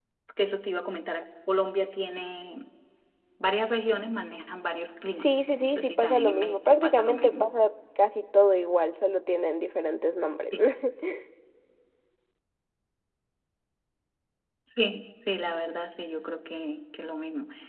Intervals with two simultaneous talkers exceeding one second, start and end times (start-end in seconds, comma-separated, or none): 5.1-7.5